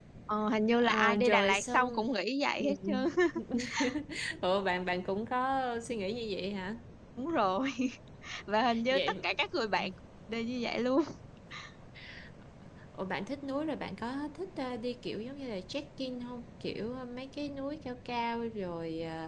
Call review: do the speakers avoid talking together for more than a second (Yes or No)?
No